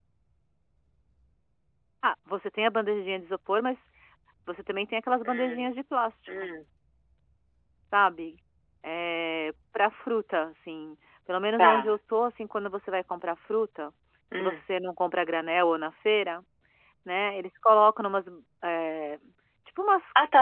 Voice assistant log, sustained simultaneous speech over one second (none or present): none